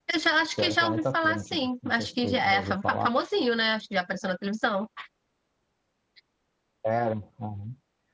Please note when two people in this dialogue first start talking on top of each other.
0.6 s

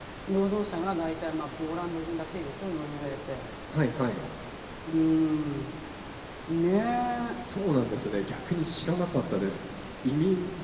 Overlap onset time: none

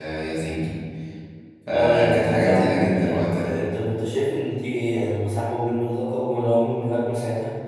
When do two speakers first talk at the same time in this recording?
1.7 s

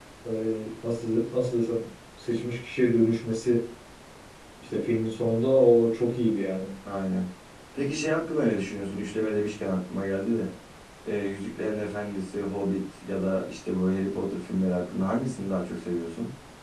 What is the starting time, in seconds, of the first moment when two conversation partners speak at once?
none

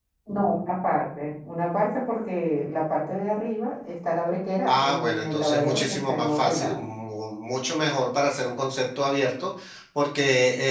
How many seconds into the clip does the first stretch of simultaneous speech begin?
4.7 s

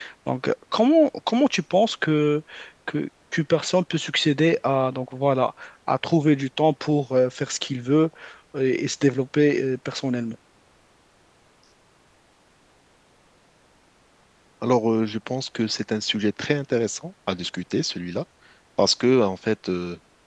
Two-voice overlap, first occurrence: none

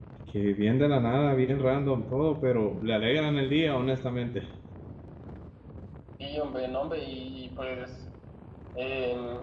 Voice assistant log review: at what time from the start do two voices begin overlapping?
none

